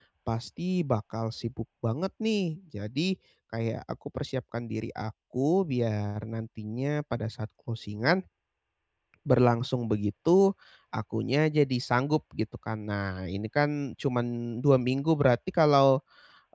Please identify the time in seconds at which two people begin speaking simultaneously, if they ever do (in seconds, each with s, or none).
none